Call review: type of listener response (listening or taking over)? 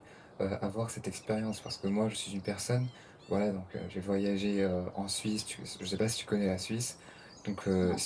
listening